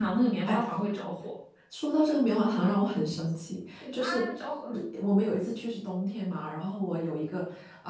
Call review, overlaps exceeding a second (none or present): none